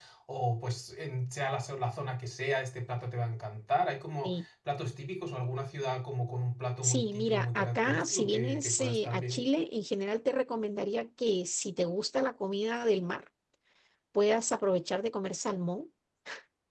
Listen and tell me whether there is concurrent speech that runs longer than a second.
Yes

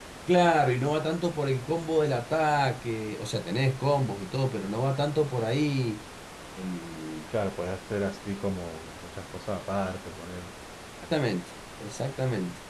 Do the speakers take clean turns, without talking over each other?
Yes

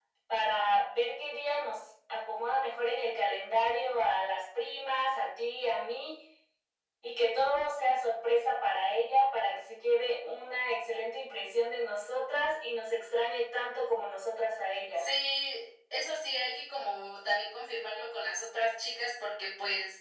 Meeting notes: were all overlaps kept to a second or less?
Yes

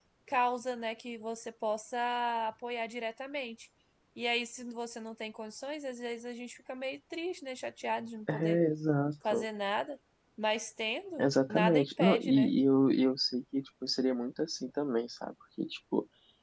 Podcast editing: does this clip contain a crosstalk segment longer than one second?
Yes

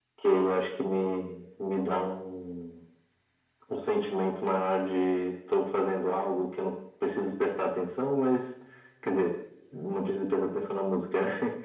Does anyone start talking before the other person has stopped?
No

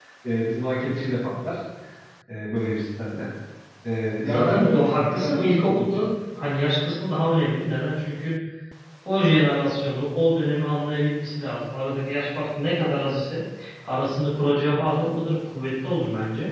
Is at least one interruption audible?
Yes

